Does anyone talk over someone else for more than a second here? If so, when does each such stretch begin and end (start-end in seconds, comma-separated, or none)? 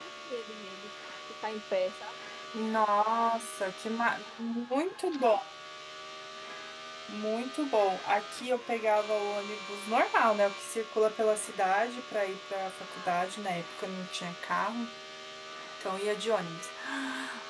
none